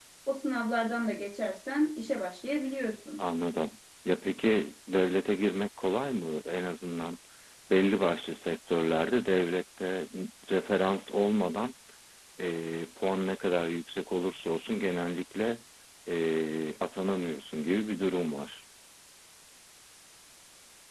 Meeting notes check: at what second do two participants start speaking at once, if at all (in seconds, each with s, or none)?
none